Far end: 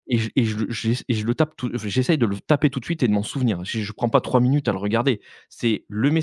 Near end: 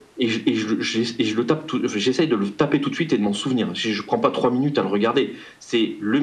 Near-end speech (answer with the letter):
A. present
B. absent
B